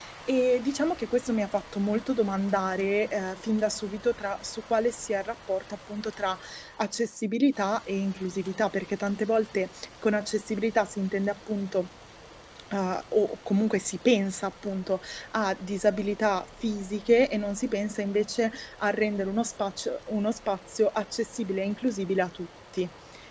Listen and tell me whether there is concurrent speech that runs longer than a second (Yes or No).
No